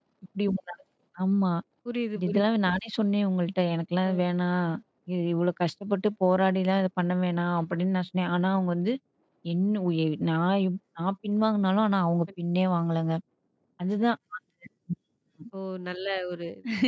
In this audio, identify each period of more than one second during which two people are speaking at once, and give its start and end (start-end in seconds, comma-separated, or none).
none